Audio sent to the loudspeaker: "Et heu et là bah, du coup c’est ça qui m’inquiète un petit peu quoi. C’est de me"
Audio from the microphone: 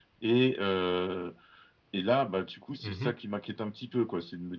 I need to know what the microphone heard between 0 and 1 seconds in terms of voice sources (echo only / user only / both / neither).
echo only